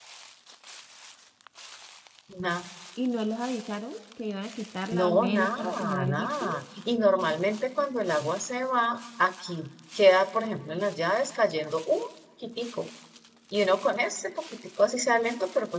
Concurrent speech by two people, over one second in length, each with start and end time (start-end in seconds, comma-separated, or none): 4.9-6.5